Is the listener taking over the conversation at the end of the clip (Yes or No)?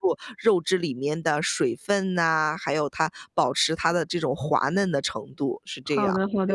Yes